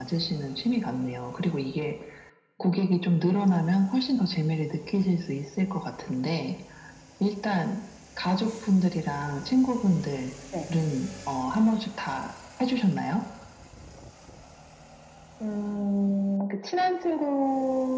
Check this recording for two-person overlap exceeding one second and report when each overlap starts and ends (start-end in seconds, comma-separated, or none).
none